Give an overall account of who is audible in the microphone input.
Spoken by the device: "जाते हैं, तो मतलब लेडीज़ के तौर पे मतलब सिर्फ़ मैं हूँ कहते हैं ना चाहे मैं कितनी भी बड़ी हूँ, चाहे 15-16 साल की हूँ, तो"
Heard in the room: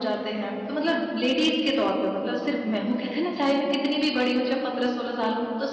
echo only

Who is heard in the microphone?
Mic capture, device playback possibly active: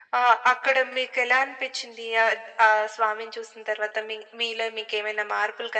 echo only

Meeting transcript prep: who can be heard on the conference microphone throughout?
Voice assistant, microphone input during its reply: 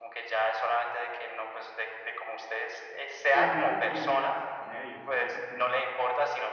both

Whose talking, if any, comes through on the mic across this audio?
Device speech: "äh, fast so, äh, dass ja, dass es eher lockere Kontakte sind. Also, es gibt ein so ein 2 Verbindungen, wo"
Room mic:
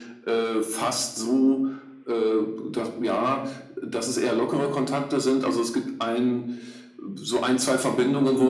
echo only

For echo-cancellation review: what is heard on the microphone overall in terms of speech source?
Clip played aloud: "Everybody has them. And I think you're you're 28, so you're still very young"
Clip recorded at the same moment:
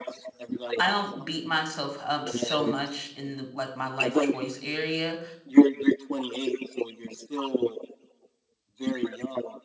both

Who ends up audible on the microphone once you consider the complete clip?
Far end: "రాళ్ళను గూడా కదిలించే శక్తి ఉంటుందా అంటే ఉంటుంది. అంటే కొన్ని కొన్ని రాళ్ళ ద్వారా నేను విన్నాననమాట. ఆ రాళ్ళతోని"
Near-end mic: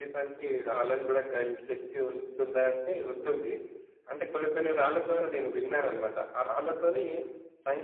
echo only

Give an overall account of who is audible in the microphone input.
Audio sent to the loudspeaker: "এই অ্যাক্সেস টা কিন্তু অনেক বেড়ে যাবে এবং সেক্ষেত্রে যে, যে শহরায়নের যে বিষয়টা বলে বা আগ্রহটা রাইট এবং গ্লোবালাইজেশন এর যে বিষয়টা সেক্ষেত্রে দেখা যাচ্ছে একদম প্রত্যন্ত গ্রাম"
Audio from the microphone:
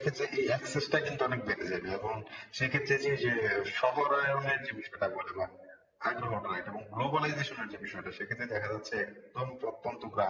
echo only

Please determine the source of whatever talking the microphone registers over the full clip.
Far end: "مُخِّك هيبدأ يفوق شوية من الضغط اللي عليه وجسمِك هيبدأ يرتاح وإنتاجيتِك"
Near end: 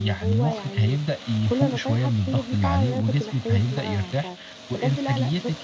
both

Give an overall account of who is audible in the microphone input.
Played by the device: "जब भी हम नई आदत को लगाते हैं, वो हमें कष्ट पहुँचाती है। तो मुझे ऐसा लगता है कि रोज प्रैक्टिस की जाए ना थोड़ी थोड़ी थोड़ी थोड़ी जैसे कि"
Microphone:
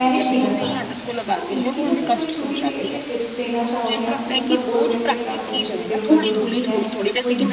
both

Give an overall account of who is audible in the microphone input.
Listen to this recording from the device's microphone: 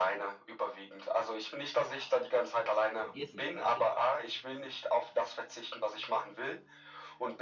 both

